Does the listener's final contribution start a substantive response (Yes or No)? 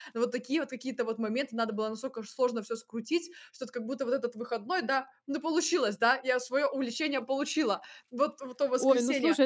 Yes